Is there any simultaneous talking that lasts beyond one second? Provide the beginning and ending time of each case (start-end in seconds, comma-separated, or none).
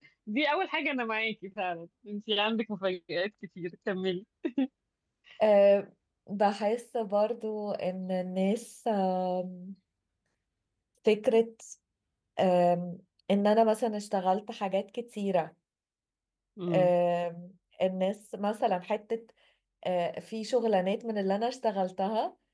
none